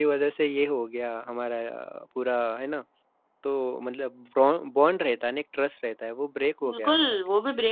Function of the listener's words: taking over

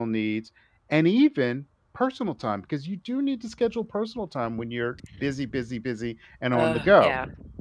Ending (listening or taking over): taking over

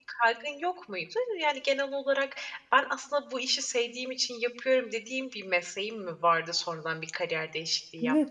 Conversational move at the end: taking over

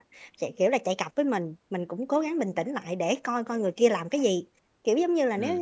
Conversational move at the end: listening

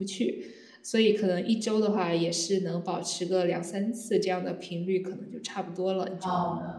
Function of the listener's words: taking over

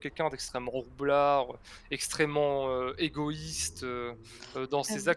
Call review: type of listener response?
taking over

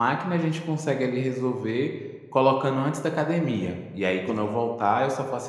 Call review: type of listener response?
listening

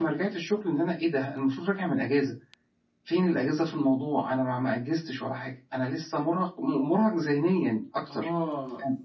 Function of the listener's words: taking over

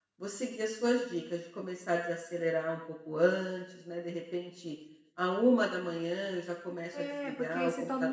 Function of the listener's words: taking over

